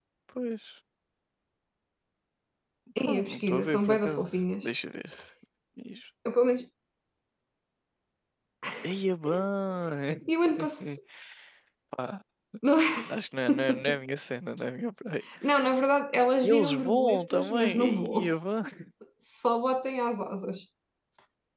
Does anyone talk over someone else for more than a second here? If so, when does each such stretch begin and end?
3.0-4.6, 16.4-18.2

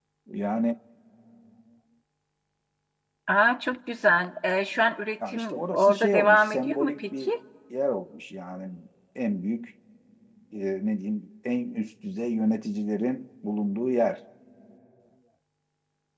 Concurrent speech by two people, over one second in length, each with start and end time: 5.3-7.3

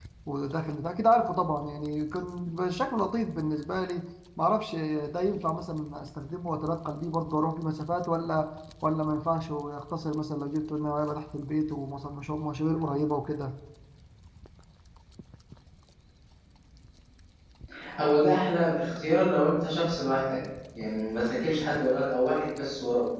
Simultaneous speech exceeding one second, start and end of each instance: none

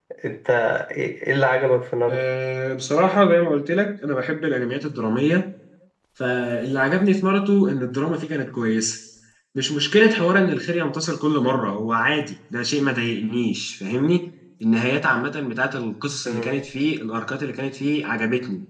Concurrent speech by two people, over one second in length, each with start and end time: none

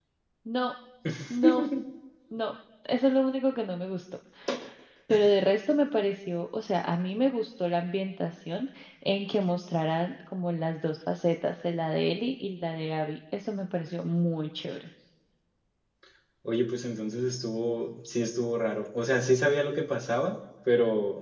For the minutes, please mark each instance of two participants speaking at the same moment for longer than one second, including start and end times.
none

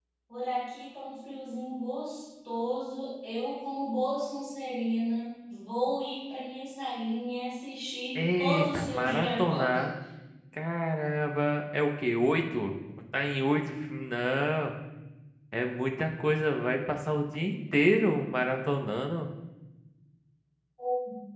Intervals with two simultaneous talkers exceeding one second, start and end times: 8.4-9.6

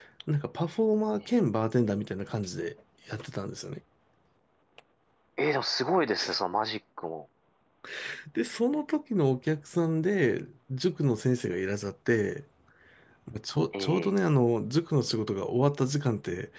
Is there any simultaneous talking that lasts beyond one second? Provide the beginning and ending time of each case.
none

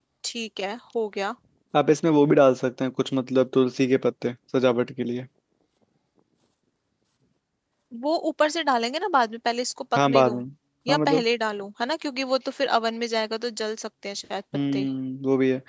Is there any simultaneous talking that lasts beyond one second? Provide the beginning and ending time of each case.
none

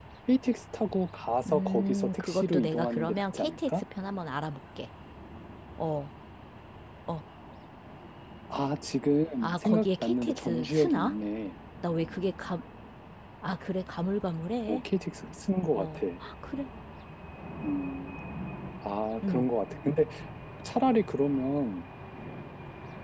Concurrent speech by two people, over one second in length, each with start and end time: 1.5-3.8, 9.4-11.1

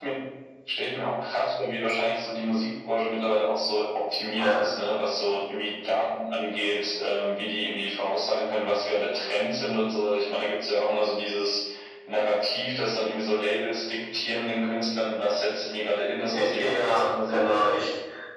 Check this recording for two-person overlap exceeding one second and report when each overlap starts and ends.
16.4-17.7

